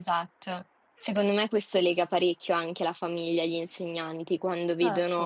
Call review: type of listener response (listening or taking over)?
listening